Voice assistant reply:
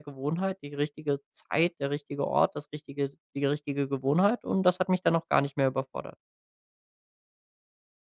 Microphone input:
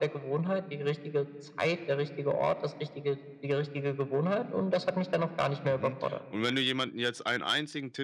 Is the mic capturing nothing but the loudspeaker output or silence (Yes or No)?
No